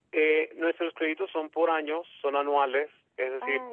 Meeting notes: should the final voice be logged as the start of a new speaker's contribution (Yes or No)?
No